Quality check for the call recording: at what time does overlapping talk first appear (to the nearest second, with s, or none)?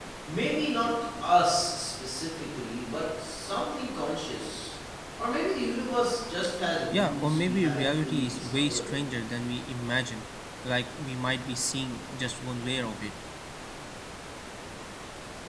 7 s